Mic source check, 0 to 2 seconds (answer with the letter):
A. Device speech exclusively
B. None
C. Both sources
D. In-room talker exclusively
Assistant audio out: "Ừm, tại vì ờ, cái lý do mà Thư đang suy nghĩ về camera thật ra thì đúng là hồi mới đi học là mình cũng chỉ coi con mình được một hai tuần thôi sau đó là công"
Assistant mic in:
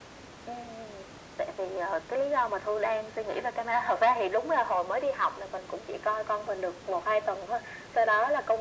A